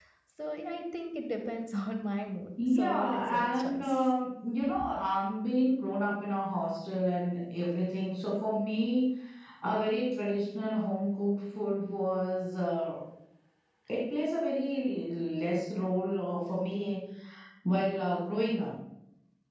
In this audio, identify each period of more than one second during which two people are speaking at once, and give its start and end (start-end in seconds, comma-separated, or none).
2.7-4.0